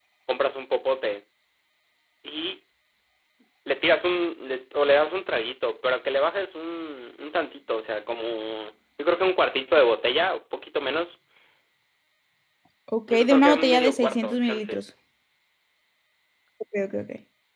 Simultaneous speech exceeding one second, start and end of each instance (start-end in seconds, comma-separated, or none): 13.1-14.8